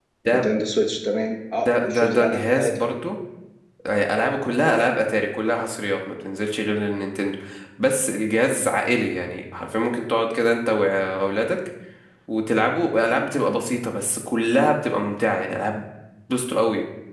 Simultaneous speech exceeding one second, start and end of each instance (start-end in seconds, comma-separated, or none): 1.6-2.9